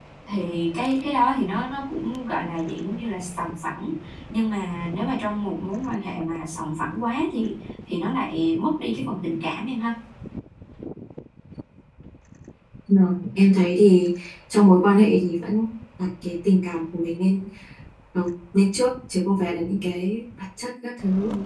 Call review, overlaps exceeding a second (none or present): none